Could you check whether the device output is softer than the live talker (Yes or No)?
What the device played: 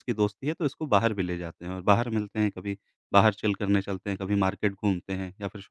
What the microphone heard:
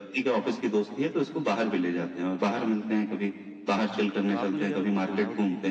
No